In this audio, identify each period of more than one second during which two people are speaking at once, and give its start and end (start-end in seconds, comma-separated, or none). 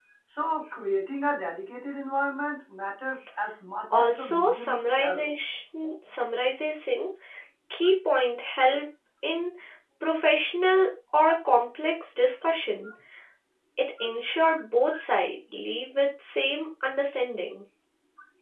4.0-5.2